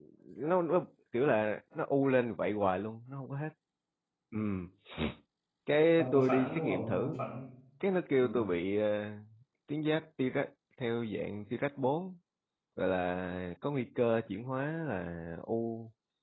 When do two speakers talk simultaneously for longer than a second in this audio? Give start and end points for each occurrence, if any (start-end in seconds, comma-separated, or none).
6.0-7.2